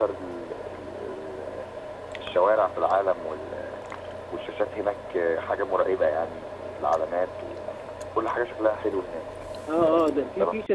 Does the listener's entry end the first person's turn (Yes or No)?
Yes